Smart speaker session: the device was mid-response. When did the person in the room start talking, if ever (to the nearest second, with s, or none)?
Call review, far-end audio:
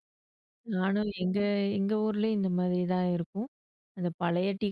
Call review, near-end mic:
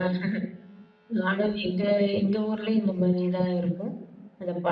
none